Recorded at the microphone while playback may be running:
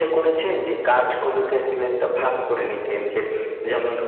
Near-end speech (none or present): none